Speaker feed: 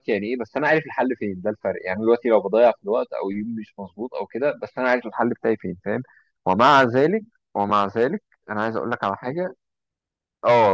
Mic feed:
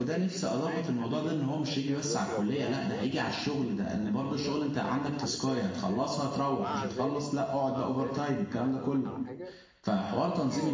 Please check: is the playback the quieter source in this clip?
Yes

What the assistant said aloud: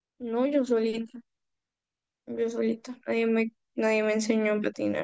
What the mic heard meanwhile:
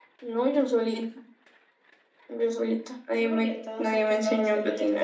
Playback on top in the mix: Yes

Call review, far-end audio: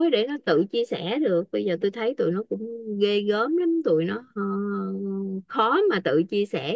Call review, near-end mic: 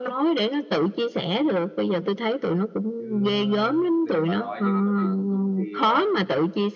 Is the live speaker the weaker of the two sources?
Yes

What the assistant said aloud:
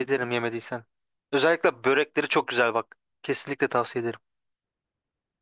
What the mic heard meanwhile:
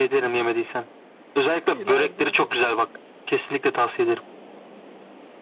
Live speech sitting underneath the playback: Yes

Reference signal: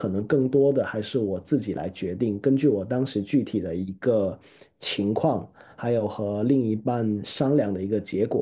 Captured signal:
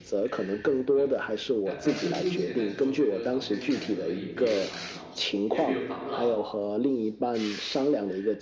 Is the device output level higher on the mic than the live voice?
Yes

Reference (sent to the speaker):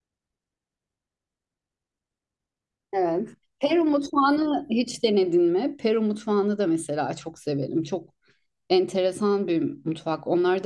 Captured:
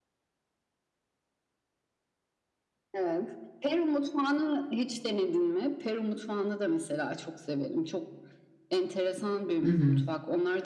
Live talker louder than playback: Yes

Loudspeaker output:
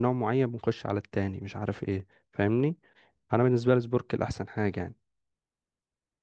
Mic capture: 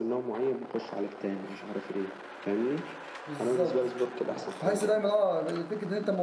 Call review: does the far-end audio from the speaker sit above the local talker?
No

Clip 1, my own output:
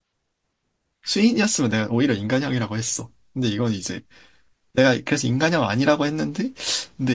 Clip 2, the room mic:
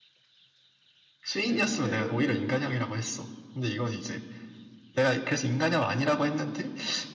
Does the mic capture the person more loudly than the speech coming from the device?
No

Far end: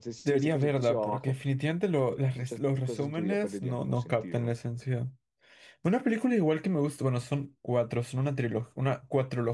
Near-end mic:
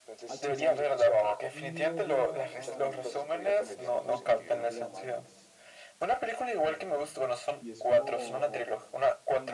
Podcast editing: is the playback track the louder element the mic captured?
Yes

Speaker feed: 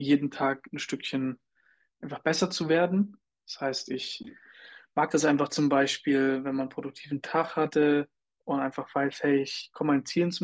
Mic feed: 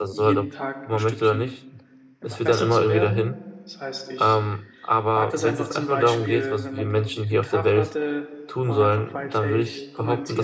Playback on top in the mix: No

